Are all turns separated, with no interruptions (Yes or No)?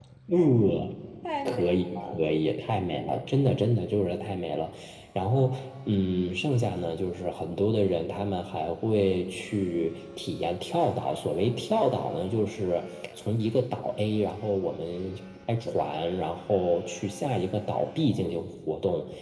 No